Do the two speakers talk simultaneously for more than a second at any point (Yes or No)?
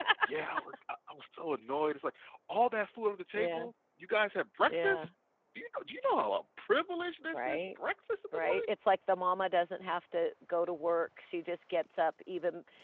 No